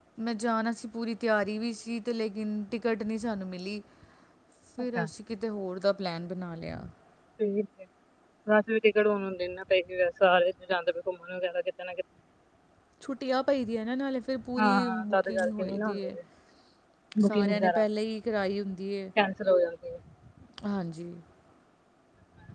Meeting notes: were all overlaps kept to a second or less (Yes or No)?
No